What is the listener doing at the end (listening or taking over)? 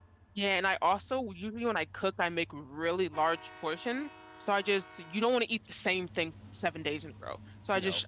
listening